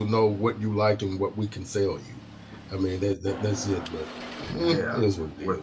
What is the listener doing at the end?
taking over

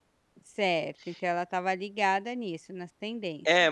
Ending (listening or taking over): taking over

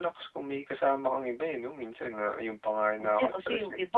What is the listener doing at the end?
taking over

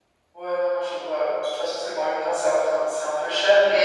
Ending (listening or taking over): taking over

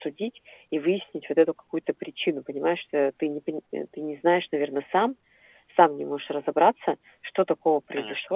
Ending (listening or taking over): listening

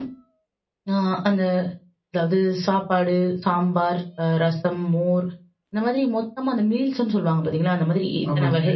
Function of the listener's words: listening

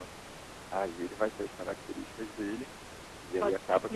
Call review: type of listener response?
taking over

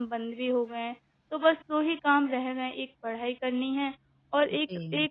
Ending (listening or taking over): listening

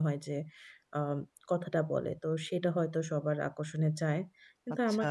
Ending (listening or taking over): listening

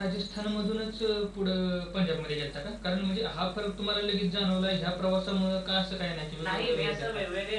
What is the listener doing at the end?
taking over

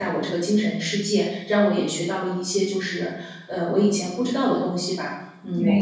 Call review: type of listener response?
listening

